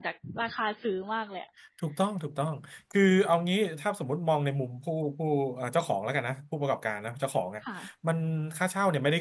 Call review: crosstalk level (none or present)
none